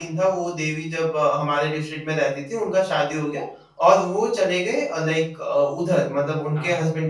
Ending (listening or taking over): listening